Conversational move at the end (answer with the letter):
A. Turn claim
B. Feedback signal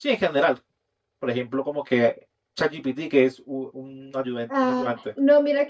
A